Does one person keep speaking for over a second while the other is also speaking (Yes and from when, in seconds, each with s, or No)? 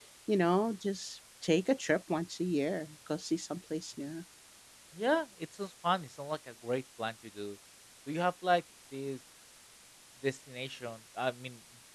No